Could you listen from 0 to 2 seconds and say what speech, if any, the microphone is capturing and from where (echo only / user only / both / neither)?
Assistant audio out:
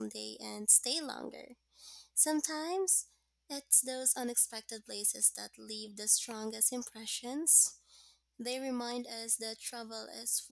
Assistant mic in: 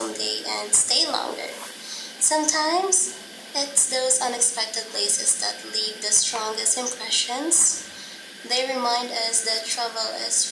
echo only